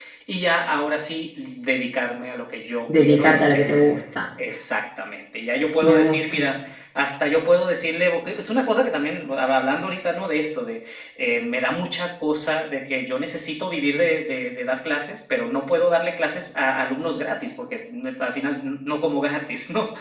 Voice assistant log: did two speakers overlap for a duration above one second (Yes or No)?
Yes